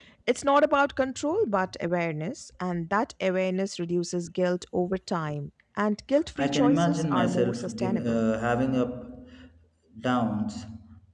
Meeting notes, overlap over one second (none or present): present